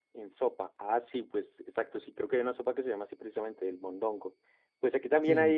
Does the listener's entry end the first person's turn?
No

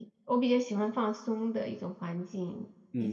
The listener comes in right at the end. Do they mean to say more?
Yes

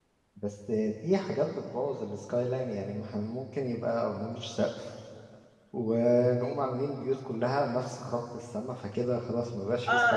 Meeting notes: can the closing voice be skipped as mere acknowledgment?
No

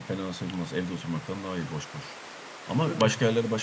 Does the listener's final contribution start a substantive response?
No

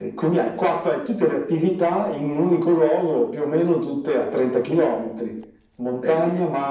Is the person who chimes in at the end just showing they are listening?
Yes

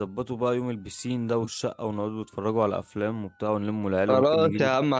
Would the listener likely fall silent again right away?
No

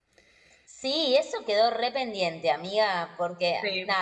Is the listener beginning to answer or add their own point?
No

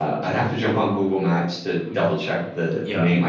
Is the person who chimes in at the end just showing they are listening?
Yes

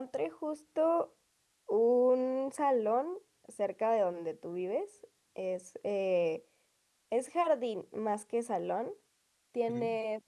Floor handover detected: No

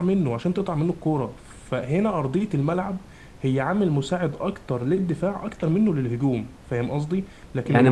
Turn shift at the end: Yes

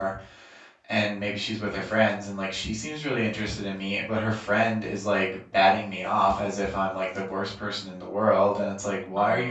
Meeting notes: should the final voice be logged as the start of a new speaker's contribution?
No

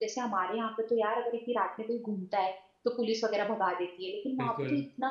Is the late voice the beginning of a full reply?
No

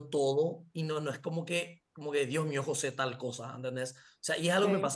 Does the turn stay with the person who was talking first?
Yes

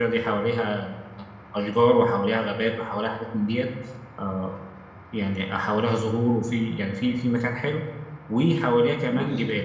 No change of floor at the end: Yes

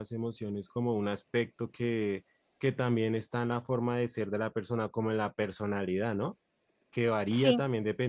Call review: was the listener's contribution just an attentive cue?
Yes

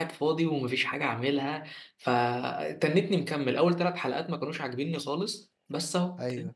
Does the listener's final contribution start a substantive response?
No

